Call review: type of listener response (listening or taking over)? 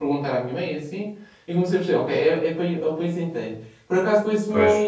listening